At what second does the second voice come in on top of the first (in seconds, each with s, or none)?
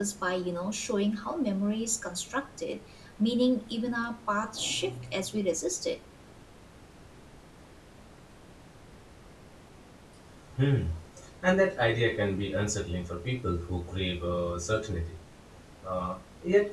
none